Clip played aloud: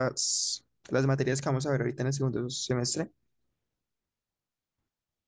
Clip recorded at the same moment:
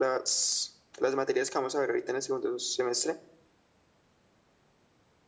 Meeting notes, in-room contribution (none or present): none